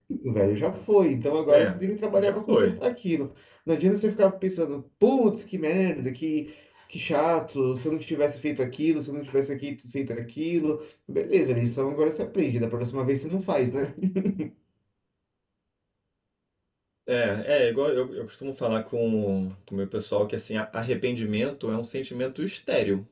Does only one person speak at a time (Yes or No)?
No